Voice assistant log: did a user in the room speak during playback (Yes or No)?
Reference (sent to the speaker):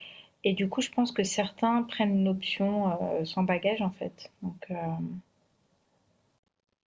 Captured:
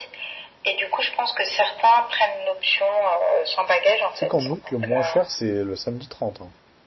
Yes